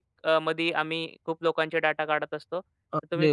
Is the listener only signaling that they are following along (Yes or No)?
No